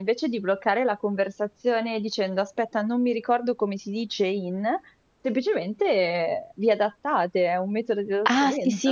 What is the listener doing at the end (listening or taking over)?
taking over